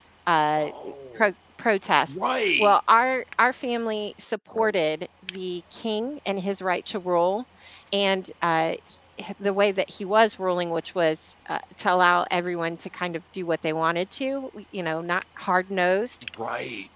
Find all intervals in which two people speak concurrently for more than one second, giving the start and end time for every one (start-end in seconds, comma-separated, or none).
none